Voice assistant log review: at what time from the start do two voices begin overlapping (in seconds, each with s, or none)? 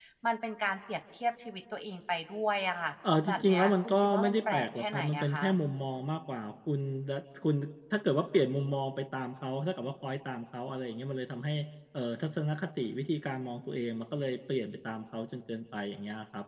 3.2 s